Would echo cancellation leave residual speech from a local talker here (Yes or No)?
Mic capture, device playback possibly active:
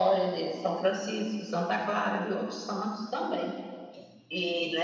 No